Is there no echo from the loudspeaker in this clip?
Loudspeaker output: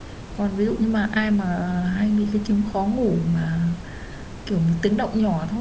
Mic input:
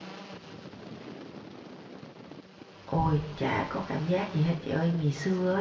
Yes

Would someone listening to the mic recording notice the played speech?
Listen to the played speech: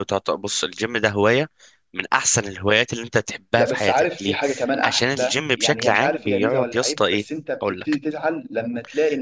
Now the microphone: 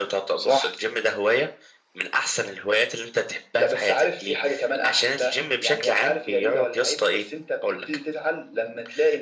Yes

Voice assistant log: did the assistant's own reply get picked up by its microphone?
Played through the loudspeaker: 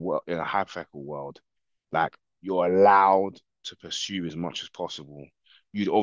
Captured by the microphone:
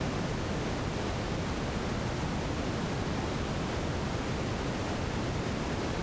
No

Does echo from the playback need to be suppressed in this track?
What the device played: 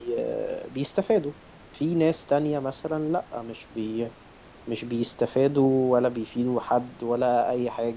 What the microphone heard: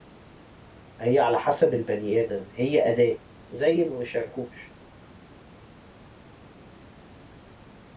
No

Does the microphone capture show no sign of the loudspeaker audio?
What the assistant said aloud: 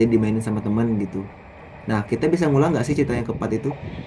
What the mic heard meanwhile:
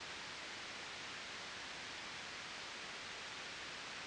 Yes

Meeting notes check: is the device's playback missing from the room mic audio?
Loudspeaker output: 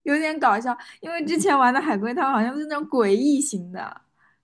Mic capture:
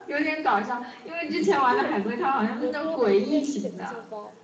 No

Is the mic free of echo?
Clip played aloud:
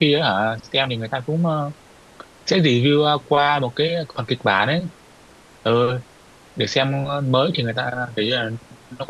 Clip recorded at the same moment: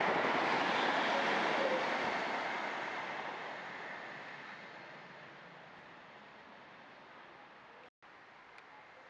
Yes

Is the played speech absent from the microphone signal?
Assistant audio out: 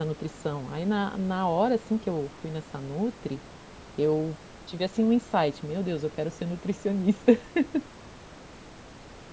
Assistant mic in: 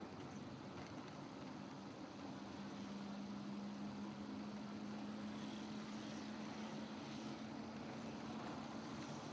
Yes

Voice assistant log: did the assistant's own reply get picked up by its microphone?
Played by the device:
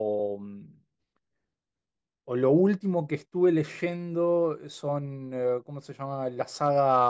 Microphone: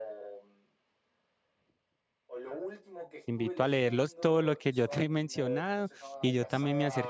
Yes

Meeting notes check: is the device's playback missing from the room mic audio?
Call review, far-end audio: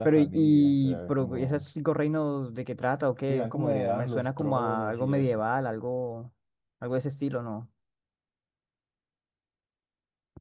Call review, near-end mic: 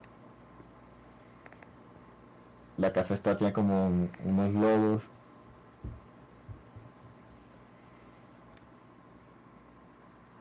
Yes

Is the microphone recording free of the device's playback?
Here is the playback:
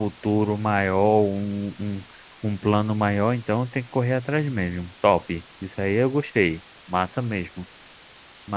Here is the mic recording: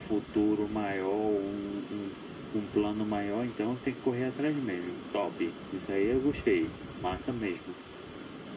No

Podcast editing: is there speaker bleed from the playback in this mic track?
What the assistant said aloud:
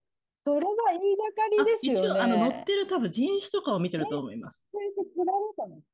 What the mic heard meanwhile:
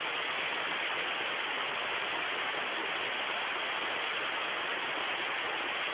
No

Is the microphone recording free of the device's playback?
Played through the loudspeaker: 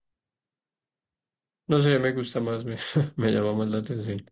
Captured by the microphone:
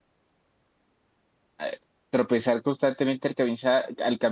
Yes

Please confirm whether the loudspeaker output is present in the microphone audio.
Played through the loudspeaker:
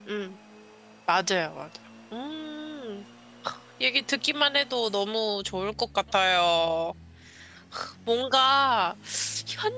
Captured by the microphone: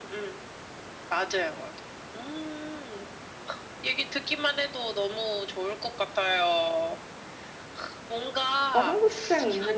Yes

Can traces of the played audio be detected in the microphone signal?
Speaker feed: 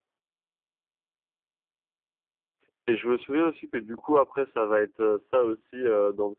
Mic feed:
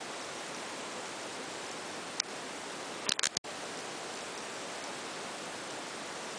No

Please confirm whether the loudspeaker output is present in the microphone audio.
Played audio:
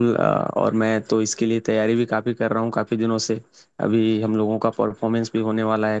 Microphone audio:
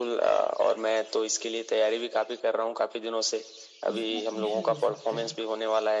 Yes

